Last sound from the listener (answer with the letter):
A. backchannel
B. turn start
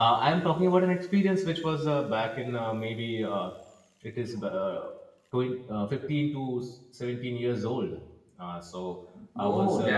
B